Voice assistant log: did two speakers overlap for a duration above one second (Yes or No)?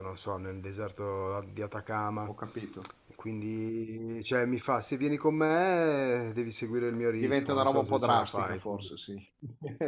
Yes